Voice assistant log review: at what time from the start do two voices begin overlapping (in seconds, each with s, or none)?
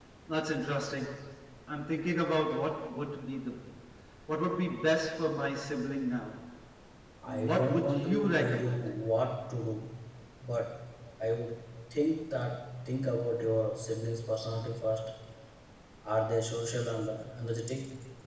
7.3 s